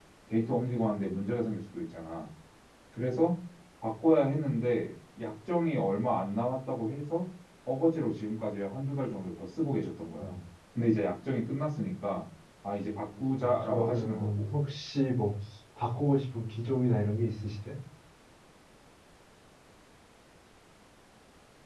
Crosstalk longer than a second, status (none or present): present